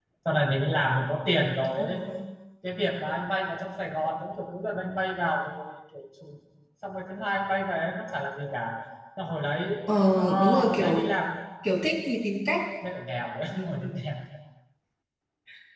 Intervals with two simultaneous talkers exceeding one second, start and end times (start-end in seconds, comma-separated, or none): 9.9-11.1